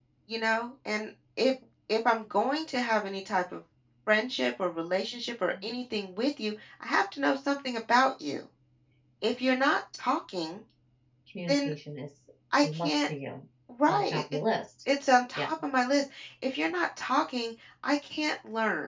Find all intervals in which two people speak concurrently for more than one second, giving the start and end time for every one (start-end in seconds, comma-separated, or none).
none